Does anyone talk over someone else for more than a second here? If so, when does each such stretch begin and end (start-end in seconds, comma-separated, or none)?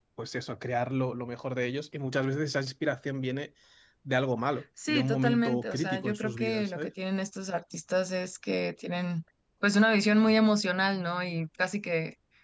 4.9-6.9